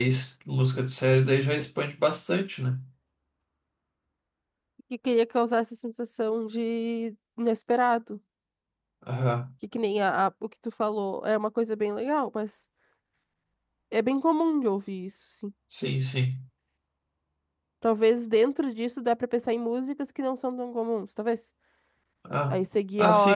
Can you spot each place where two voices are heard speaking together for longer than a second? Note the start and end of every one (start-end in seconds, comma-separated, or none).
none